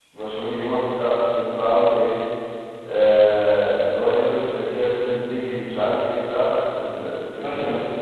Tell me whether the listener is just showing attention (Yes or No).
No